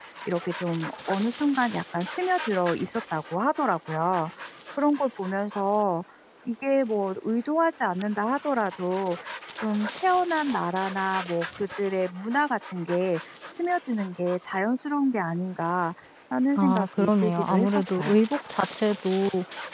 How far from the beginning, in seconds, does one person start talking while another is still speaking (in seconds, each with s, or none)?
16.6 s